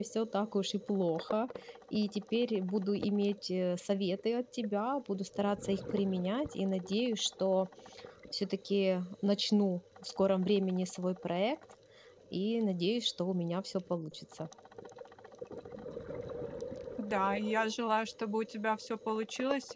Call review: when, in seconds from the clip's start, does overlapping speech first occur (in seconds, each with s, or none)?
none